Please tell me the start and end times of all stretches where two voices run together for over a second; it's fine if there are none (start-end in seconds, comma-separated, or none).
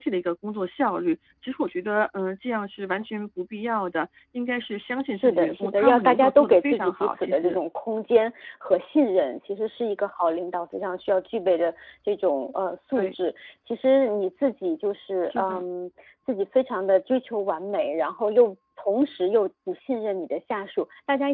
5.1-7.6